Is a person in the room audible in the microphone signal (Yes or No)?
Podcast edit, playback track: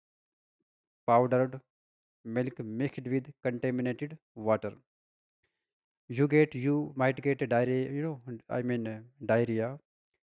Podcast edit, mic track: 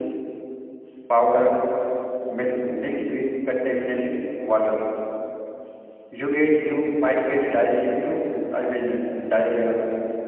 No